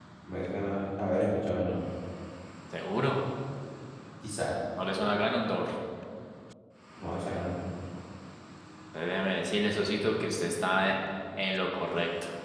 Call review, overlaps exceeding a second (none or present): none